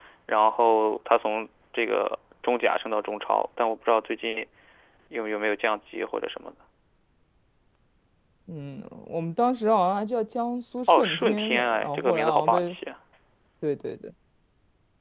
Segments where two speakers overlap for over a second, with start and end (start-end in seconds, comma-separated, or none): 10.9-12.8